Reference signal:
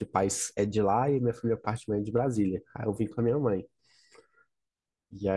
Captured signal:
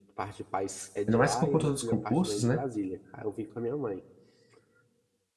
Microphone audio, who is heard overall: both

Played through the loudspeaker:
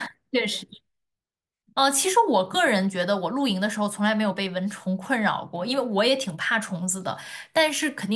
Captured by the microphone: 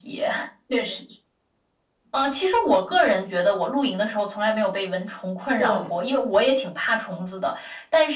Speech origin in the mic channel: both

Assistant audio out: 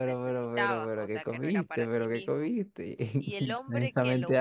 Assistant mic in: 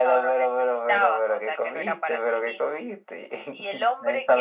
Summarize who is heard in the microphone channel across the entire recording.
echo only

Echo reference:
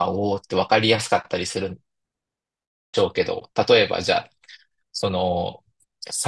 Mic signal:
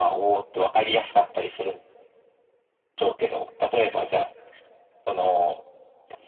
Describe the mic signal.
echo only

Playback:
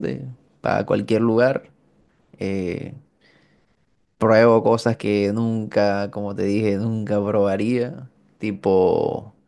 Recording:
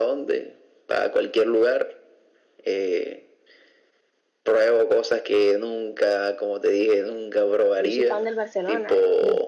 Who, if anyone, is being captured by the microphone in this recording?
both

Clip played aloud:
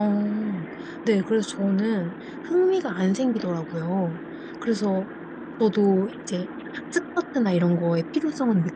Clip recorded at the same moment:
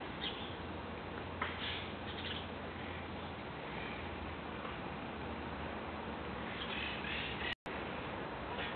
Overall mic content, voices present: neither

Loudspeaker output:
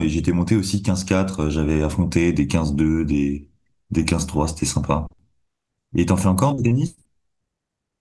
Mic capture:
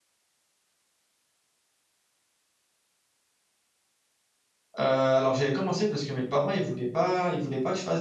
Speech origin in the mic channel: user only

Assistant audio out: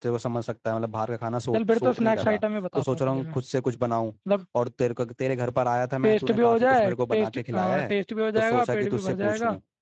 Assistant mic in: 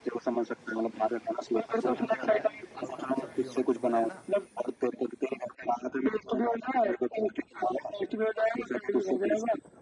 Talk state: both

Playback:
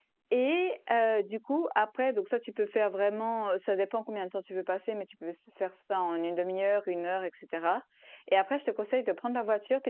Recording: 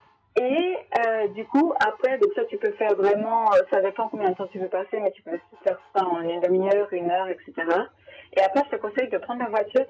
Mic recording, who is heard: echo only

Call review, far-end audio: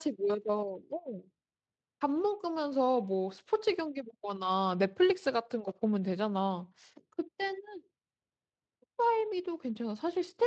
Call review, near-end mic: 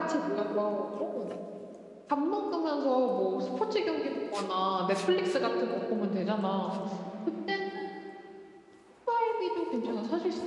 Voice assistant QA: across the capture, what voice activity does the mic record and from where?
both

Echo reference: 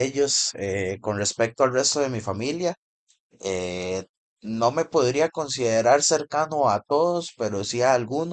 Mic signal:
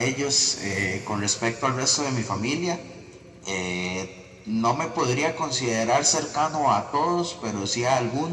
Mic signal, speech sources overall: echo only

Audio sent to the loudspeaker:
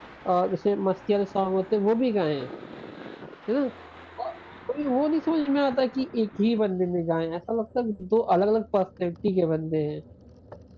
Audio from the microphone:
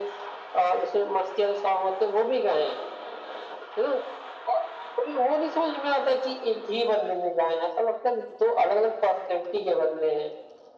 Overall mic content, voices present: echo only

